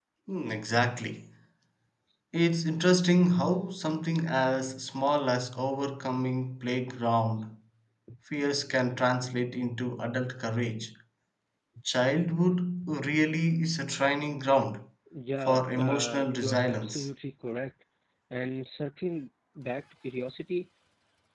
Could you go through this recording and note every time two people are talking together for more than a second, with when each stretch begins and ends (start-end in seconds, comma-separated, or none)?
15.4-17.1